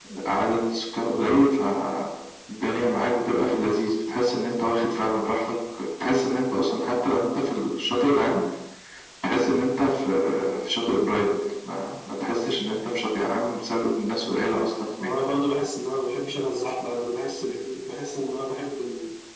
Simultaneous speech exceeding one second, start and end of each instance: none

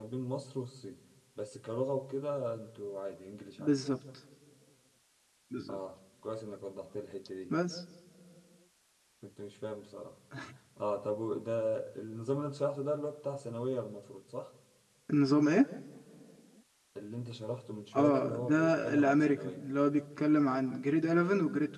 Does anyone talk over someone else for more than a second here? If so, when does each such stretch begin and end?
17.9-19.6

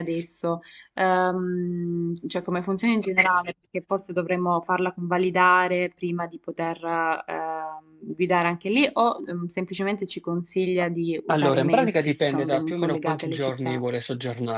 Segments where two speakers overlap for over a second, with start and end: 11.3-13.8

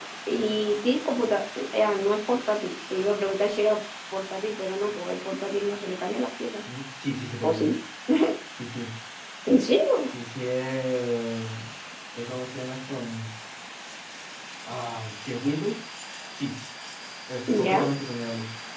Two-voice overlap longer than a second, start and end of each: none

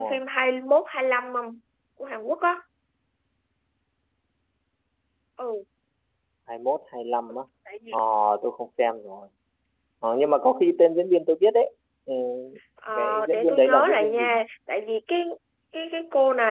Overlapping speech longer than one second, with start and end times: 13.0-14.4

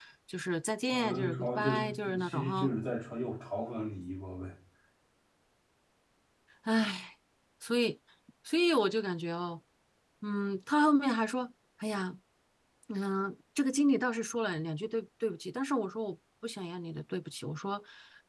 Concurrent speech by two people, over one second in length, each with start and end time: 0.9-2.7

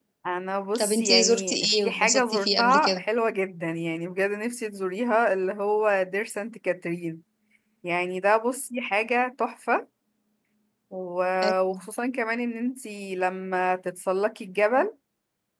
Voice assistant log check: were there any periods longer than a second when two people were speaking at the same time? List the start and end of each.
0.8-3.0

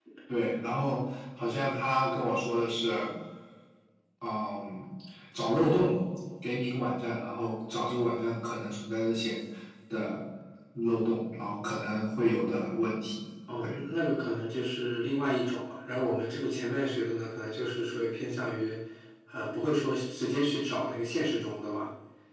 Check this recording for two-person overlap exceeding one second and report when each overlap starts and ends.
none

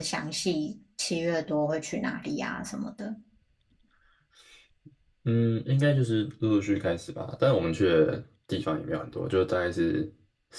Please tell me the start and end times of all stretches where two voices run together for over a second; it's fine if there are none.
none

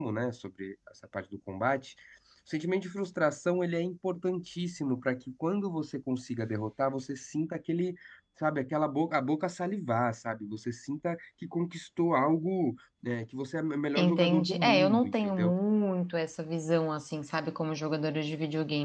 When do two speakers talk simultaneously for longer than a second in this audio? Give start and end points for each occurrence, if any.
14.0-15.5

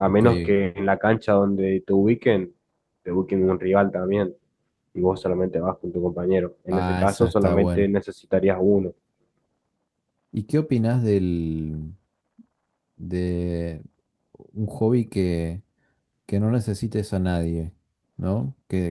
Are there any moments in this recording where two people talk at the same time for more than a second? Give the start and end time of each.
6.7-7.9

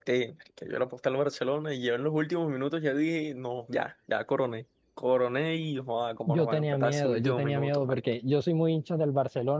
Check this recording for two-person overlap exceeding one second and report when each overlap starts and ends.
6.3-7.8

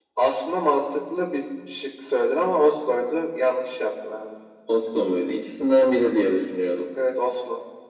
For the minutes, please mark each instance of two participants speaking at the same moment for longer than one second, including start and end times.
none

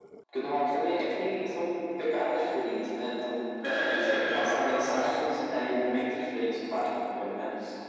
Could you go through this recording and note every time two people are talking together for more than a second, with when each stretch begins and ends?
3.9-5.2

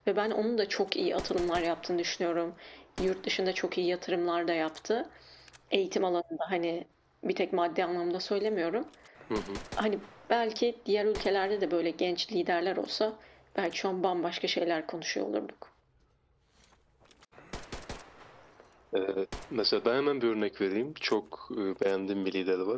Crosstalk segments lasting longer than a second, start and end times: none

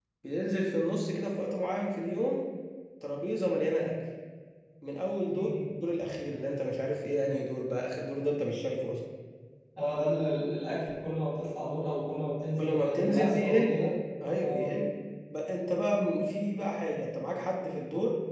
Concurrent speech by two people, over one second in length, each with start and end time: 12.6-13.8

